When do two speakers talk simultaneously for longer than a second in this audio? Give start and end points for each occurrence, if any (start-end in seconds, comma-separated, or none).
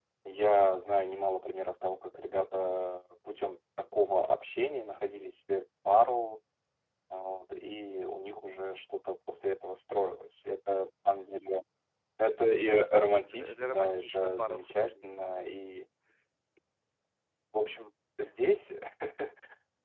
13.3-14.9